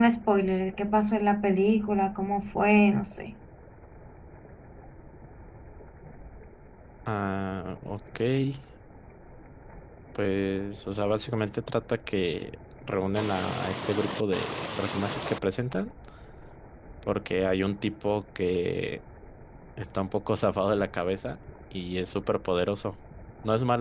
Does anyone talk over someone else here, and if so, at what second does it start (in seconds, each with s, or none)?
none